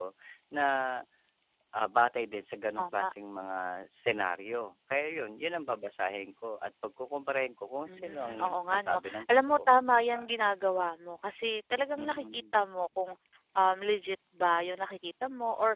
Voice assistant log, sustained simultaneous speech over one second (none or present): present